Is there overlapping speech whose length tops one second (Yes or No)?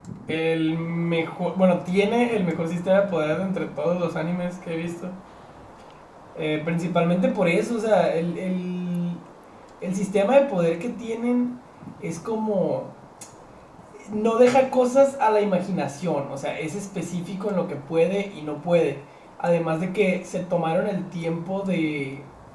No